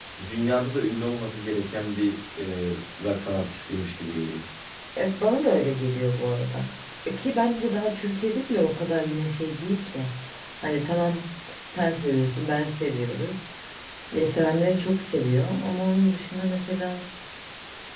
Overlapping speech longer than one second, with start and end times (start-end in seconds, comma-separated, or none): none